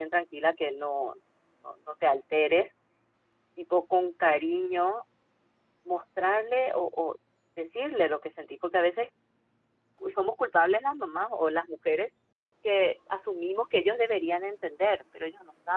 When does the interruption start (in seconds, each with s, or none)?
none